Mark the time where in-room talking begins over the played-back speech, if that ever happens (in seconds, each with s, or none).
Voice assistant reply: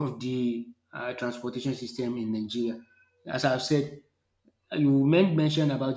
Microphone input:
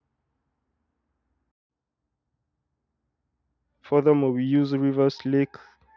3.8 s